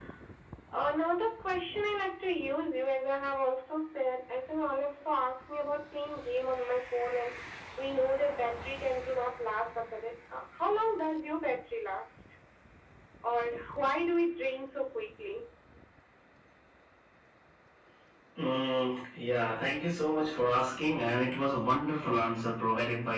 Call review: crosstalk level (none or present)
none